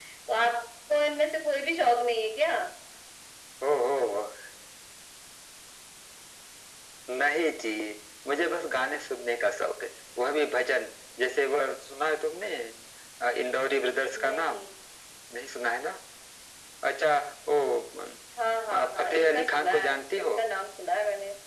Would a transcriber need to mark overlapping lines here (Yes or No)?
Yes